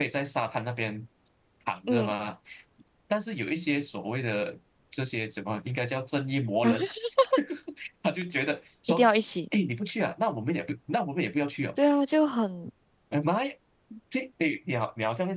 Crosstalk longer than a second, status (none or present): none